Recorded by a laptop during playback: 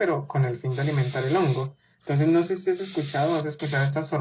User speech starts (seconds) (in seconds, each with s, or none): none